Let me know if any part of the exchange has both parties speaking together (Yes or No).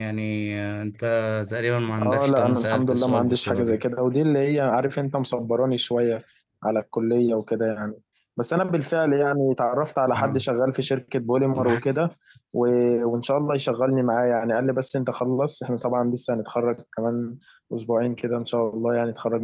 Yes